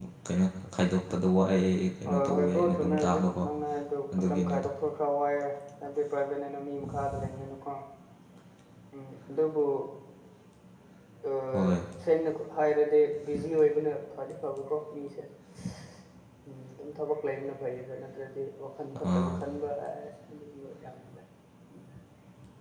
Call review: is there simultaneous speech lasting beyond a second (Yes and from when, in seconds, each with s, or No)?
Yes, from 2.1 s